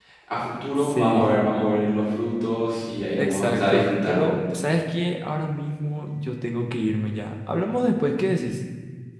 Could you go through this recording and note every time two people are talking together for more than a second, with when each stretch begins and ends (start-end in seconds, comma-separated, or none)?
3.2-4.6